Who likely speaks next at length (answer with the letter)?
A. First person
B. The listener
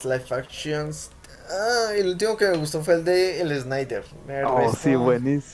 B